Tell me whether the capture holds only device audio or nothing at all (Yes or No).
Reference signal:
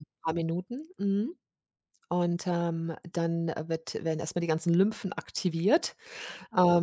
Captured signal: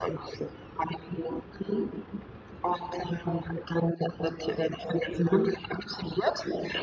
Yes